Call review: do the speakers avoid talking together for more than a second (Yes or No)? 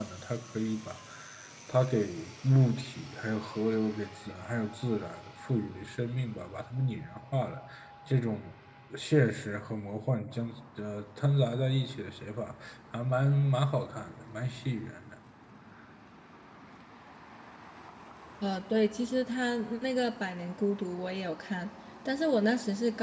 Yes